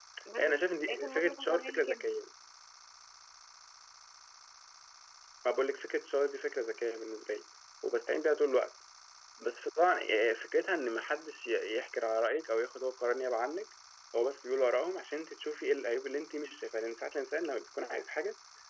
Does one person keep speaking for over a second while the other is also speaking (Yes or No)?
Yes